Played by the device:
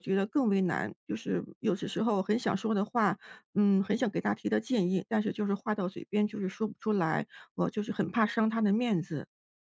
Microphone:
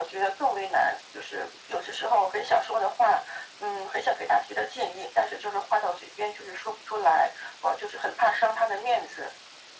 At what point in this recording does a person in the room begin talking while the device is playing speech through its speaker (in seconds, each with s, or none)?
none